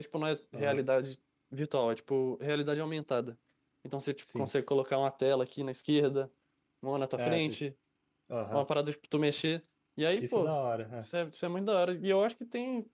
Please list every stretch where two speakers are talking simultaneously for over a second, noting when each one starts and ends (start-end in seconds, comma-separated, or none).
none